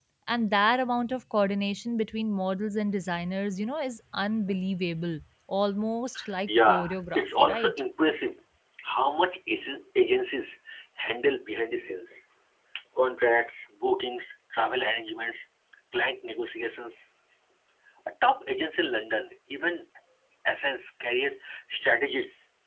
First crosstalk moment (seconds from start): 6 s

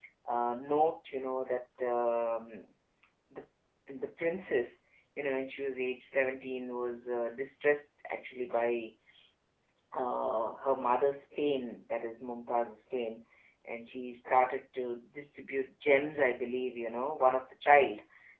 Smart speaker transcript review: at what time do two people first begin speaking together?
none

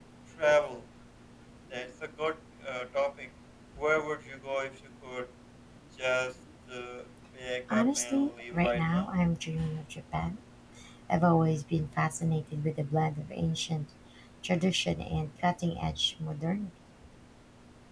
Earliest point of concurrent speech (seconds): 8 s

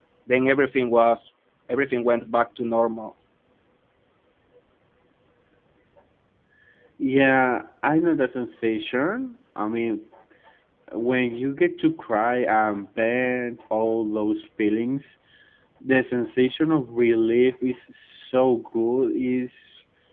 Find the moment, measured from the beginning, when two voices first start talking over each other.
none

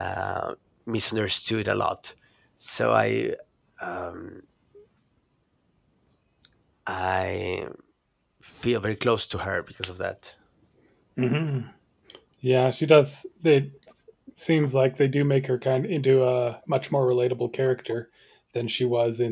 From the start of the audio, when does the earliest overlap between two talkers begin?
none

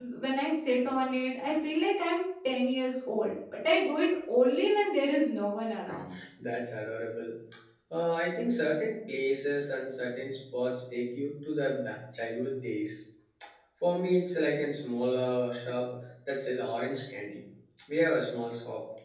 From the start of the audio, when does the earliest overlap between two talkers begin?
none

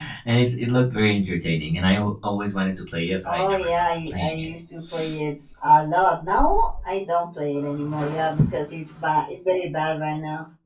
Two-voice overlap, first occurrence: 3 s

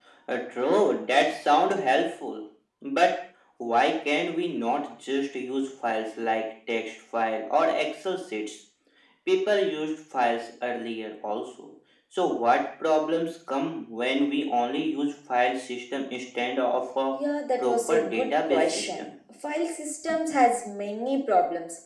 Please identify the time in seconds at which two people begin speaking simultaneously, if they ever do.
18 s

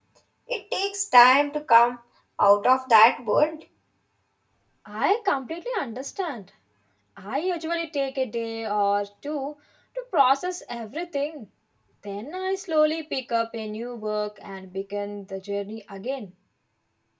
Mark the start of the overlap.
none

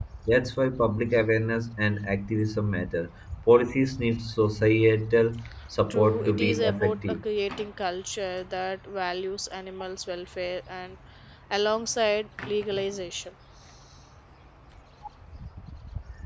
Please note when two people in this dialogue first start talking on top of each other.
6 s

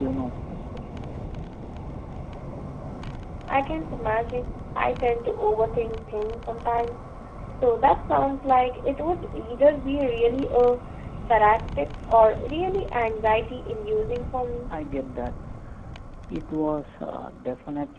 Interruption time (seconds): none

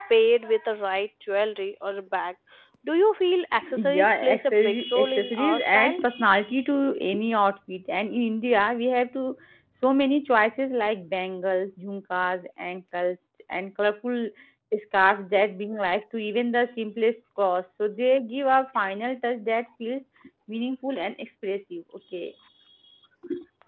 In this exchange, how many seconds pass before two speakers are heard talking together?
4 s

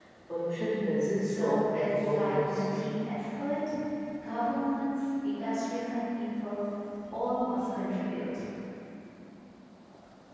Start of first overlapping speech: 1 s

